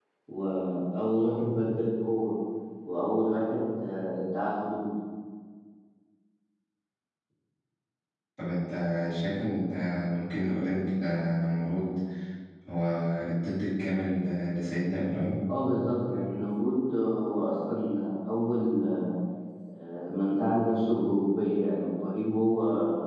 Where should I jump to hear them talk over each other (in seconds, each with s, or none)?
none